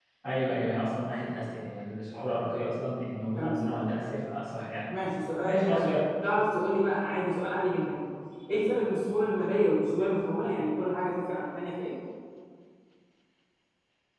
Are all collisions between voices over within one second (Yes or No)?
Yes